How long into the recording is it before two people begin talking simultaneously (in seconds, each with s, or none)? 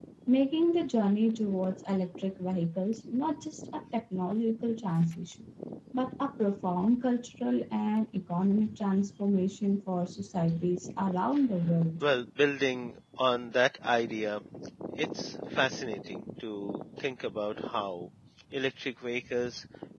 none